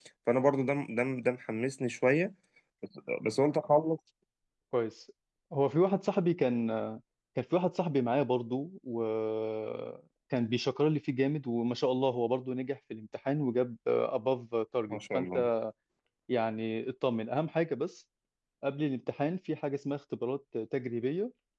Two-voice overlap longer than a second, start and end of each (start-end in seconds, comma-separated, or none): none